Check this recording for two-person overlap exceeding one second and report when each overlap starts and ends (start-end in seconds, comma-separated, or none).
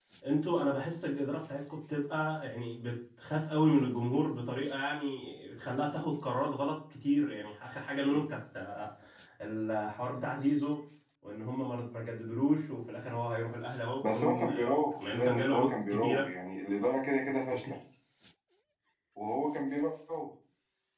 14.0-16.3